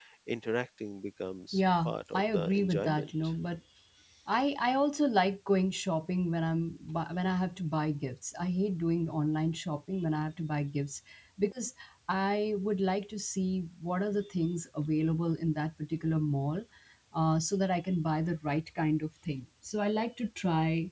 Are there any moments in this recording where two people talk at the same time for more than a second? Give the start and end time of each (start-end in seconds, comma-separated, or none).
1.5-3.1